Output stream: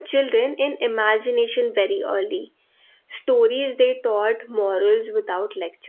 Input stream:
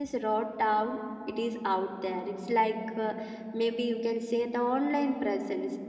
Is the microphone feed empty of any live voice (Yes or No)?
No